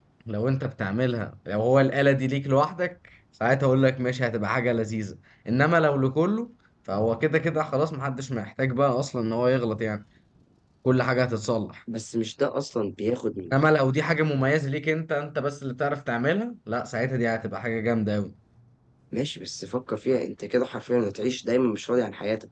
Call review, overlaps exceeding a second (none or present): none